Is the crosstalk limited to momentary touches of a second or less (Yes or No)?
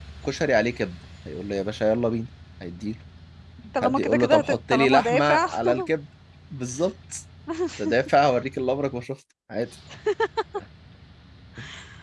No